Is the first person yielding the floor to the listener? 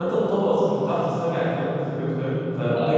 No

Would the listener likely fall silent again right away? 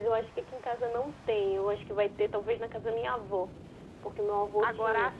No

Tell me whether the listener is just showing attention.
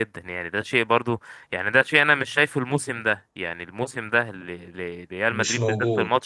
Yes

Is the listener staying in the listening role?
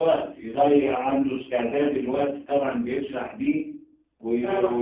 Yes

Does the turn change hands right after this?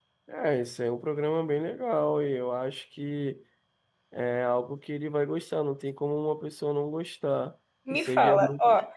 Yes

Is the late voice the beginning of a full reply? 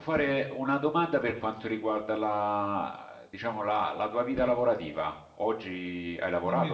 Yes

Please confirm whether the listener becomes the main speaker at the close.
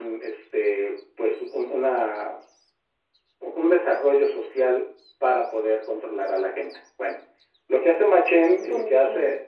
No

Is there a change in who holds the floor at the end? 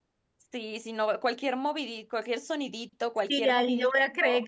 Yes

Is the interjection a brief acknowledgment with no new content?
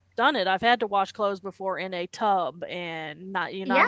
Yes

